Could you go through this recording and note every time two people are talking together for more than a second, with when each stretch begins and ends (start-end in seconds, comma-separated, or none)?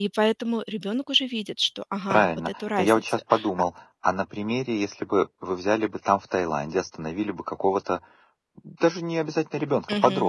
2.1-3.5